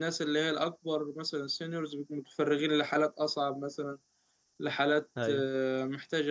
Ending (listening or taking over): listening